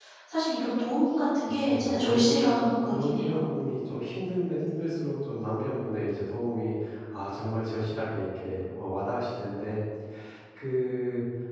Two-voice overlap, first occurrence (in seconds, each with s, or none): 1.5 s